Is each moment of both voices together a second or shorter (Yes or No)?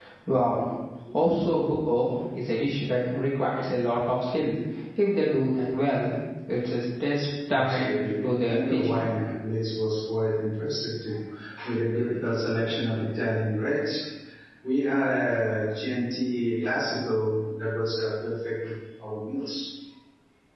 No